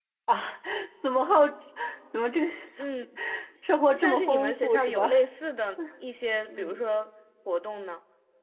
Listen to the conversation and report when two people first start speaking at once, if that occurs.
3.9 s

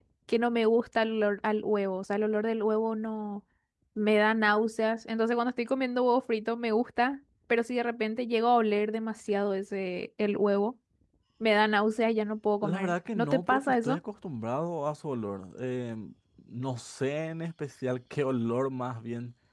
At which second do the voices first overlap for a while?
12.6 s

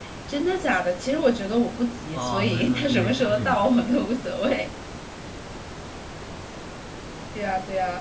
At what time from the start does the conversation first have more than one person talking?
2.1 s

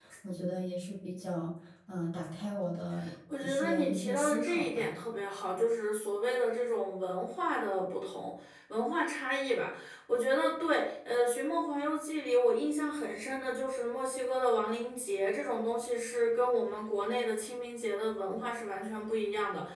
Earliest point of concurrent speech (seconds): 3.3 s

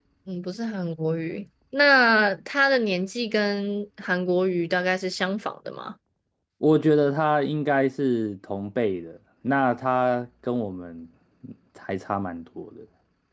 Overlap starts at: none

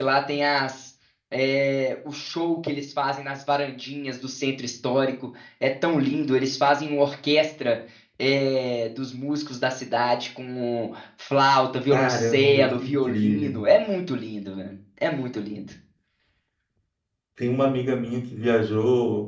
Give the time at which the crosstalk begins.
11.9 s

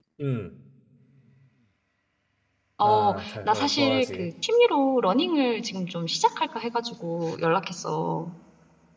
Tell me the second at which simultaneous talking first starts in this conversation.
2.8 s

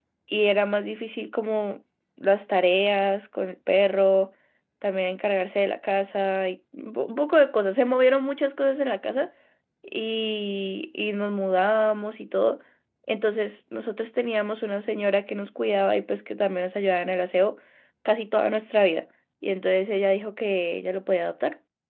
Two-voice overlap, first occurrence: none

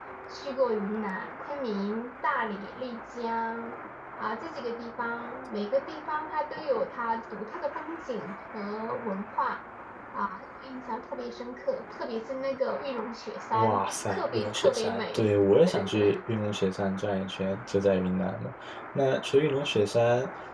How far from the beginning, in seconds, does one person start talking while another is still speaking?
13.5 s

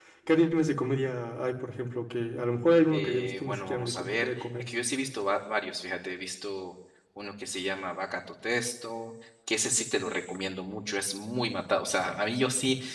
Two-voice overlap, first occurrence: 2.9 s

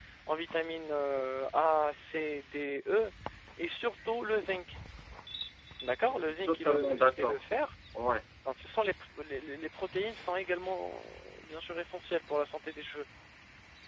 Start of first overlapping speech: 6.0 s

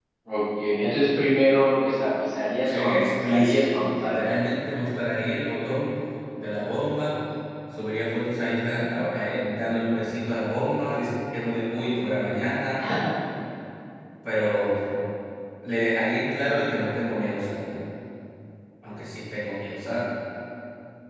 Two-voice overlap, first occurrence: 2.7 s

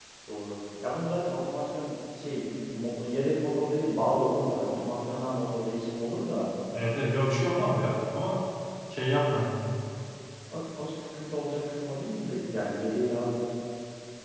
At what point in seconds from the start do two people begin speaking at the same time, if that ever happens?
none

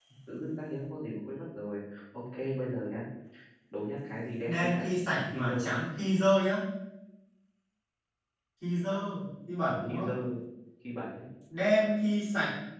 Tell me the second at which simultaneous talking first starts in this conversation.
4.5 s

